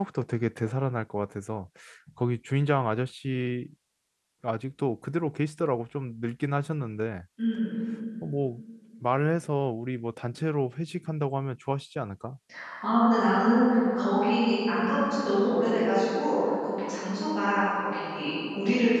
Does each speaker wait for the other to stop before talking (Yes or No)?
Yes